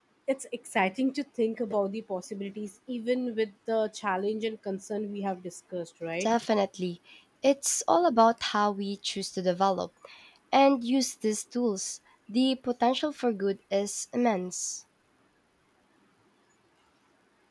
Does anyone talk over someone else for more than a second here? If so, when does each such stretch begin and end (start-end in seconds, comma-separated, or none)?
none